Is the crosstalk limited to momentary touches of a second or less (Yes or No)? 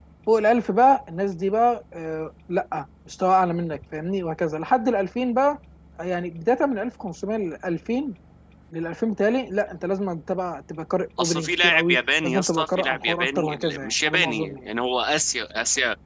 No